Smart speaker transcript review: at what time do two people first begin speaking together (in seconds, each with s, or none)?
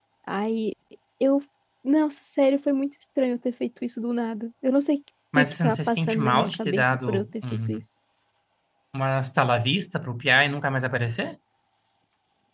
5.3 s